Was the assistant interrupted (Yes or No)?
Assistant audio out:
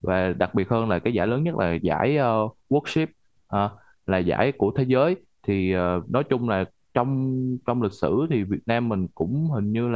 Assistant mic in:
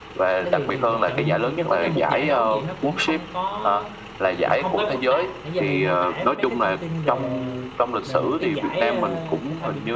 Yes